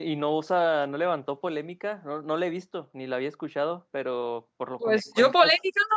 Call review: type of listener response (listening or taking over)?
taking over